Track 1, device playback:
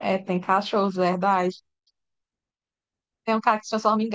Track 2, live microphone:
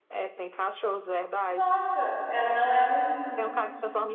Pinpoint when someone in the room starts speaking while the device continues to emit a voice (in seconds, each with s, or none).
1.5 s